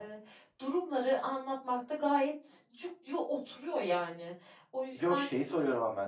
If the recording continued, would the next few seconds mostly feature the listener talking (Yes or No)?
Yes